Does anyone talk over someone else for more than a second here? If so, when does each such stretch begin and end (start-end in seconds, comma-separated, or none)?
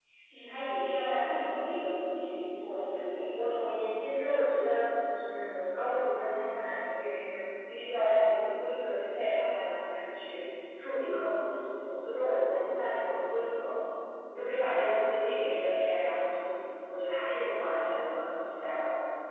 none